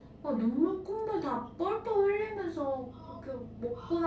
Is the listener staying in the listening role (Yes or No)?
Yes